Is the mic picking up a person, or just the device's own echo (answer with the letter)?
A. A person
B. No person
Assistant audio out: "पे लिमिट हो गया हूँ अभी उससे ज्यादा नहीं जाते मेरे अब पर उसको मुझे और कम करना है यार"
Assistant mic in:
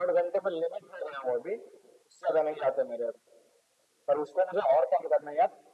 B